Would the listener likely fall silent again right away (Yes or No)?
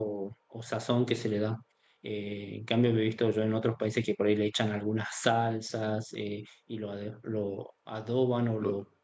Yes